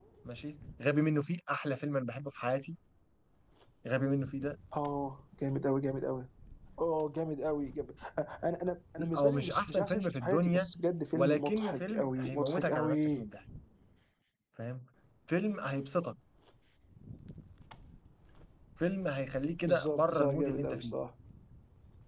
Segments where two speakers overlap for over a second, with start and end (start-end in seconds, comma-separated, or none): 9.2-10.7, 11.1-13.3, 19.6-21.0